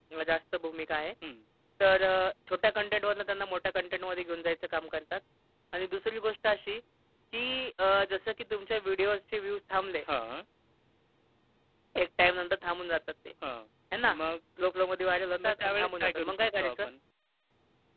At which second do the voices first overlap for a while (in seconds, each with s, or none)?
15.4 s